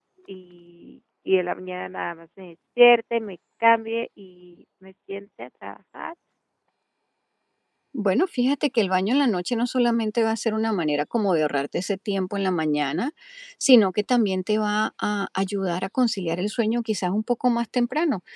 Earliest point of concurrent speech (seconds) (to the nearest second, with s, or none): none